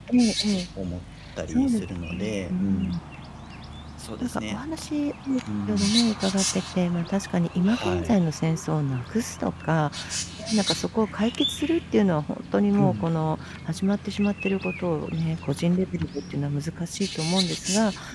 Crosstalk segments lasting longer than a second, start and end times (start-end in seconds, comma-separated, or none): 1.5-3.0